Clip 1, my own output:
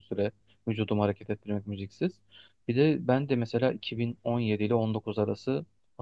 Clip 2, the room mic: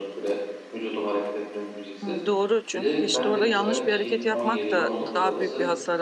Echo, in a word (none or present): present